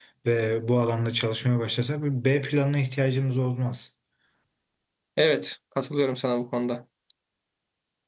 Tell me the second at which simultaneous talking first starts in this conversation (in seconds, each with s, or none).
none